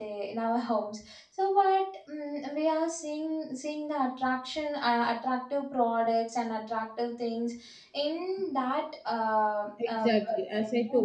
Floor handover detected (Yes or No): Yes